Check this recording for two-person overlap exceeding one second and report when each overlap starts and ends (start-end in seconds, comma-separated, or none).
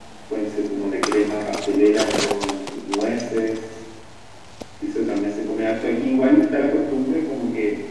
none